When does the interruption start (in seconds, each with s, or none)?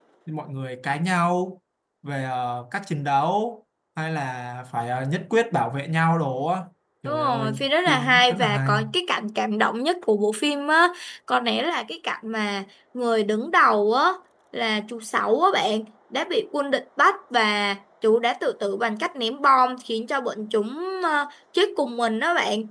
7.0 s